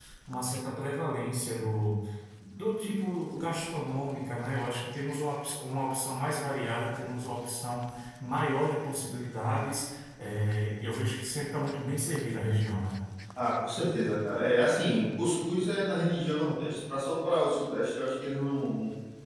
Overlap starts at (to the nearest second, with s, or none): none